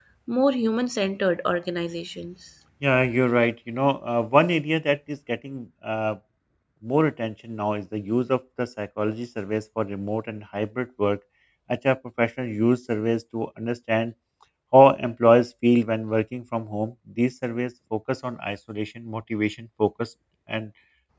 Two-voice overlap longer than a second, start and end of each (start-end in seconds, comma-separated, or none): none